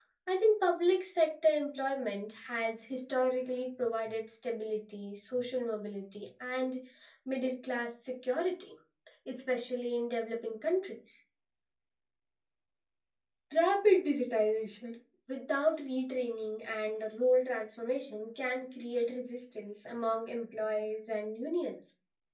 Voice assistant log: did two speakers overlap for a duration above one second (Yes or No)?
No